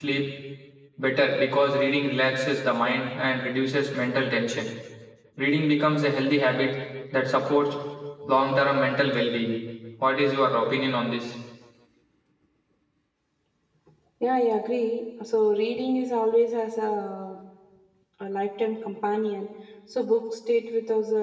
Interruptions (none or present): none